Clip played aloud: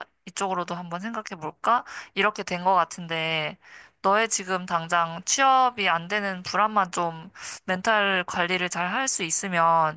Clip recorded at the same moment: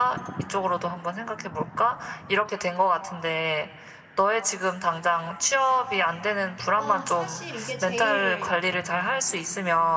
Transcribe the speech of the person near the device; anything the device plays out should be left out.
아, 사실 이게 제일

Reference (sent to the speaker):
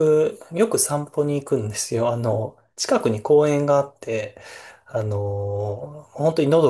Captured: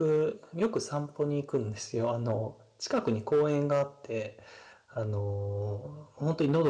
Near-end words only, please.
none

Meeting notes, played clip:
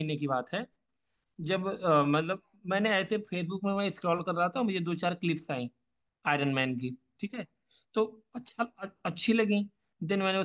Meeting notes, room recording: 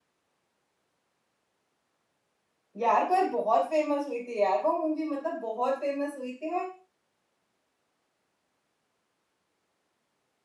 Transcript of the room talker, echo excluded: यार पर बहुत फेमस हुई थी यार वो मूवी मतलब बहुत फेमस हुई थी

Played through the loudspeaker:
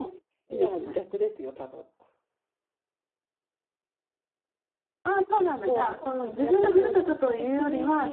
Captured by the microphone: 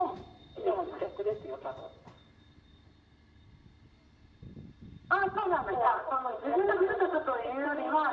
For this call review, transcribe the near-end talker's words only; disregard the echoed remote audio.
none

